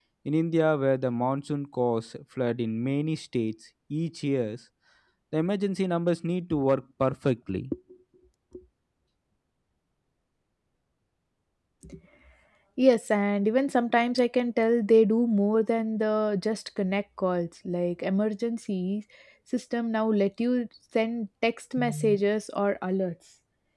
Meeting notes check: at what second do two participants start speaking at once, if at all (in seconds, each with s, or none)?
none